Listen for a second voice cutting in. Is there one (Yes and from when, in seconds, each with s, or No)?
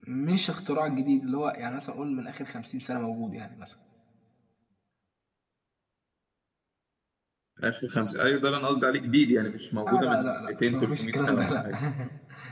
Yes, from 9.8 s